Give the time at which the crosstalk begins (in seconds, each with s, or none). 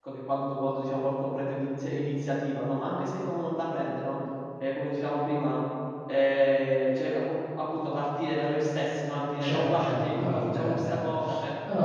9.4 s